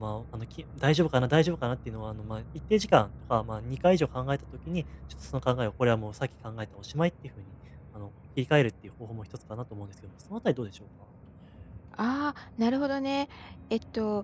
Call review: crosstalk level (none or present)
none